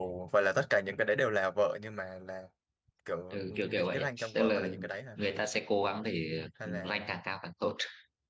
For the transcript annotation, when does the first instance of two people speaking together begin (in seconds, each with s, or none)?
3.3 s